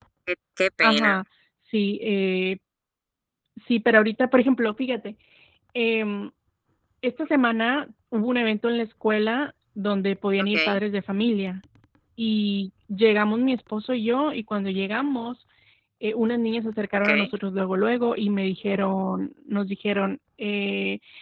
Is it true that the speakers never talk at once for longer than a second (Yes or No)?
Yes